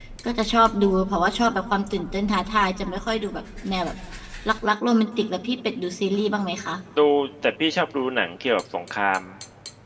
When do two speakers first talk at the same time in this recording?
none

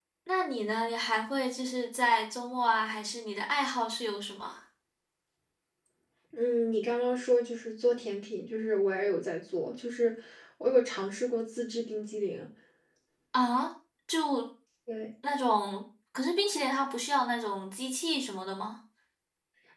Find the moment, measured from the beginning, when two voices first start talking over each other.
none

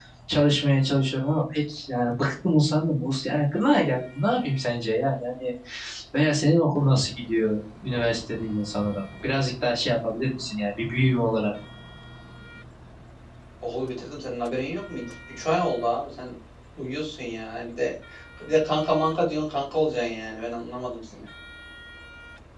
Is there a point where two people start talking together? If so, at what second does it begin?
none

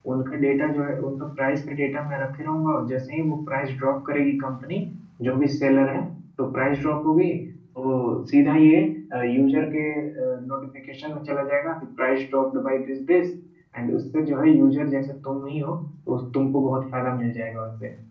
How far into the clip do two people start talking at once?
none

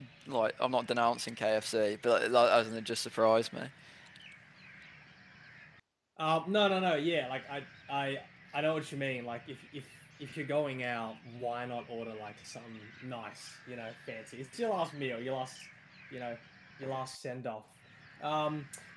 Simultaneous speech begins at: none

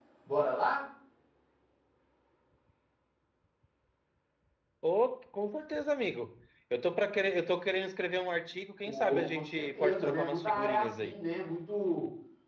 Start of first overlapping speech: 8.8 s

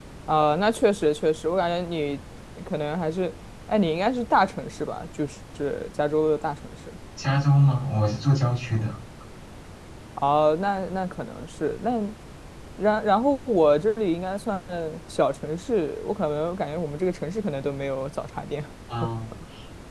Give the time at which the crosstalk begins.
none

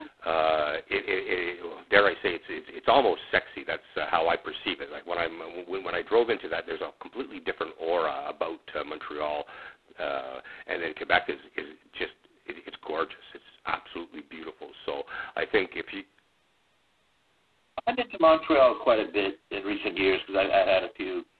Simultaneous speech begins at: none

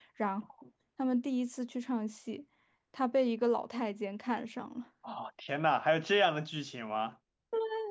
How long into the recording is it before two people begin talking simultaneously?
none

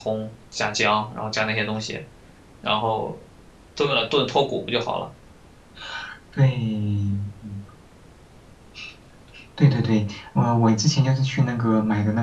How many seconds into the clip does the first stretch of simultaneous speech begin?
none

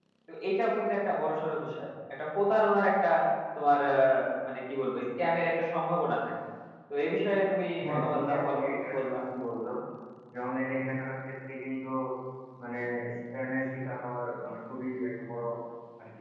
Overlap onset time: 7.8 s

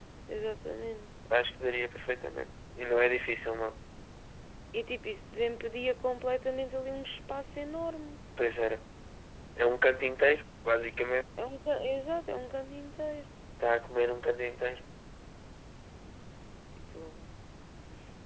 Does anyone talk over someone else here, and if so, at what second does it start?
none

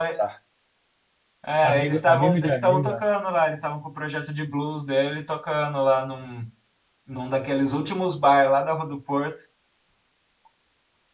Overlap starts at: 1.6 s

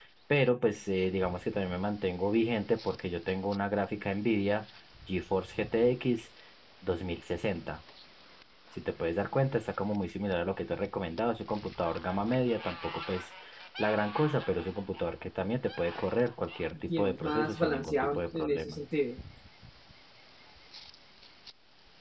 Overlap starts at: 16.9 s

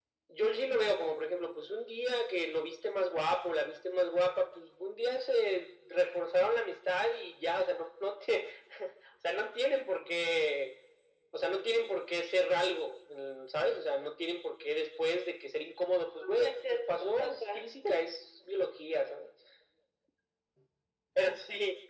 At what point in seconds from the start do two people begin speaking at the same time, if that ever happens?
16.2 s

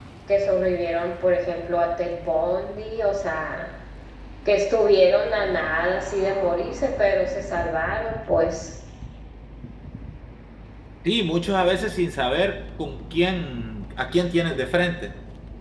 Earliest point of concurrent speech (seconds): none

